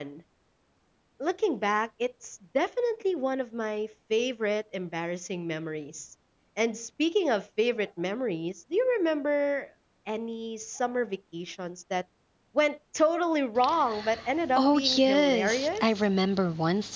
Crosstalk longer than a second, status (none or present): present